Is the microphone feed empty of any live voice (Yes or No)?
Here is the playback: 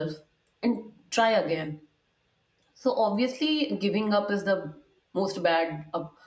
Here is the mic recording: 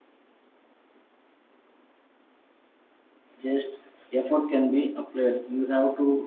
No